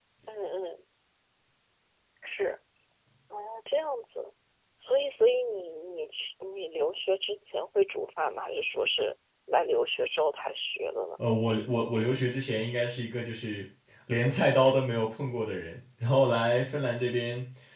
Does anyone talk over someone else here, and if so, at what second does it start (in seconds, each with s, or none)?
none